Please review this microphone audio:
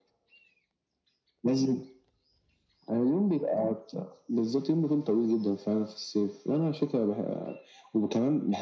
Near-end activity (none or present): none